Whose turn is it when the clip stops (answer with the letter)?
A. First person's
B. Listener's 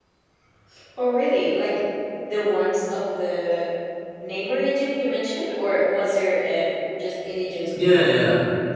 B